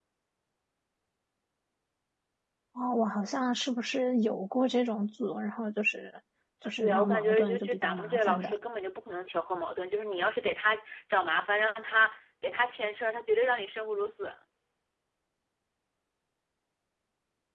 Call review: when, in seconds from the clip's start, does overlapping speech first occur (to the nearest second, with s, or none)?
7 s